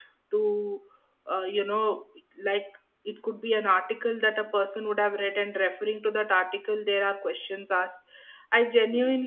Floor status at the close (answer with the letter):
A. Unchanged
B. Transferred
A